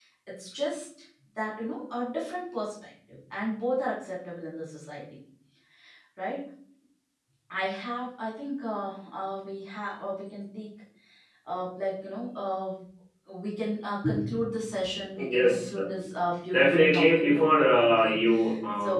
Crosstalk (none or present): present